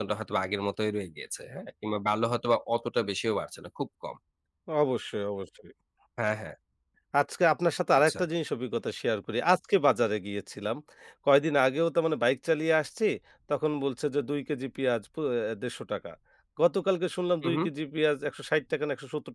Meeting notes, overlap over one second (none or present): none